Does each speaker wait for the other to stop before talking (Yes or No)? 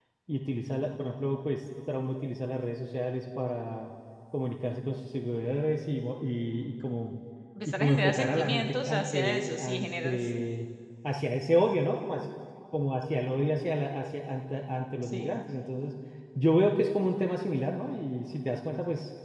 No